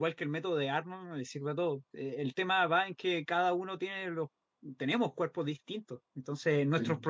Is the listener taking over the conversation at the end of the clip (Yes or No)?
No